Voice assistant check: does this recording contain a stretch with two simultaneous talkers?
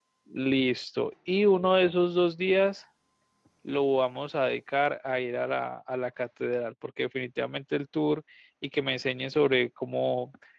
No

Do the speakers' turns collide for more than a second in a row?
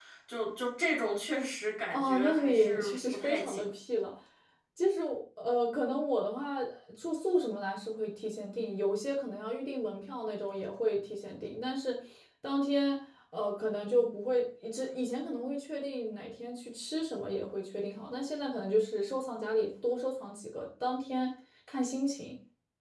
Yes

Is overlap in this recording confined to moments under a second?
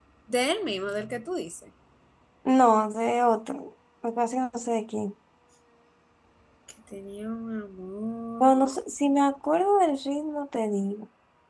Yes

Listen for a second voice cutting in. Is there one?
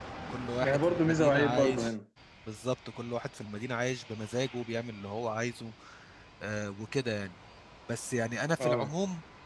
Yes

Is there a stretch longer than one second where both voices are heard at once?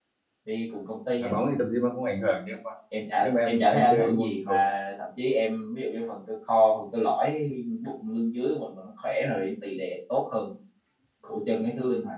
Yes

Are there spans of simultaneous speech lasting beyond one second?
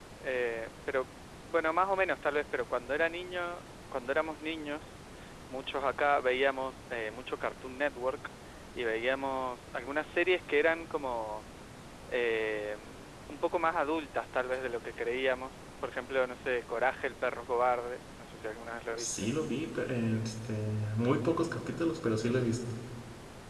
No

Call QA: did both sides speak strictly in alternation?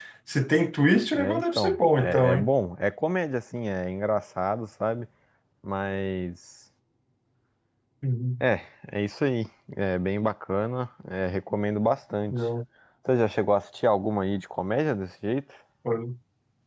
No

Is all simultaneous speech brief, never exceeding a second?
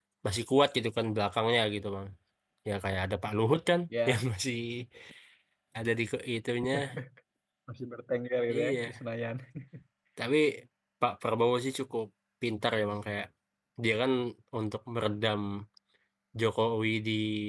Yes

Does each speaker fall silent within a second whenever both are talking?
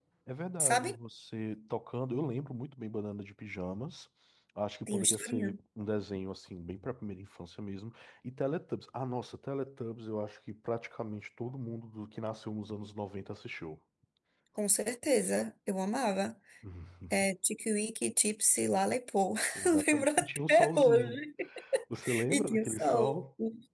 No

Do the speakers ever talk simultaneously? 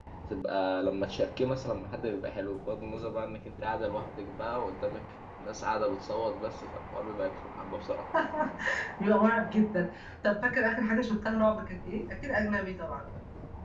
No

